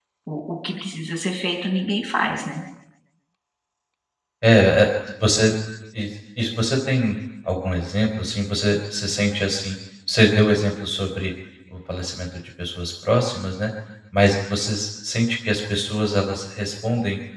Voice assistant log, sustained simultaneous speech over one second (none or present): none